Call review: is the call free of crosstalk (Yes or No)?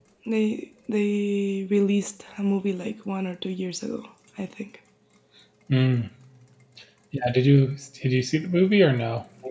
Yes